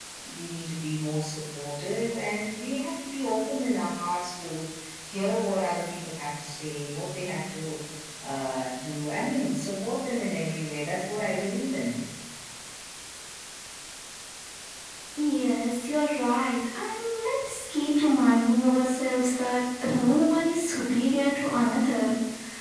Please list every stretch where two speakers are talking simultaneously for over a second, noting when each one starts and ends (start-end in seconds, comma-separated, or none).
none